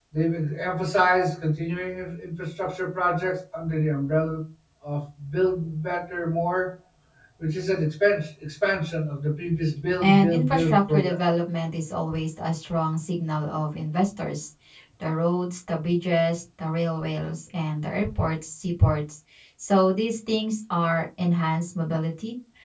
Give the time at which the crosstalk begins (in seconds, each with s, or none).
10.0 s